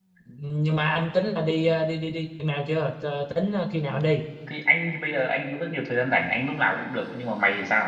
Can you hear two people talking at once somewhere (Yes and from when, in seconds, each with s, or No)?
No